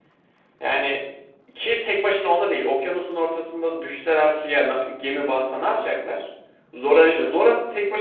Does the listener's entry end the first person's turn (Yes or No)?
No